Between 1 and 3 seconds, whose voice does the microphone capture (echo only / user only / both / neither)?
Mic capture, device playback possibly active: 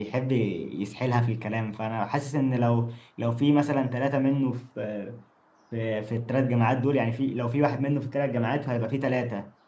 user only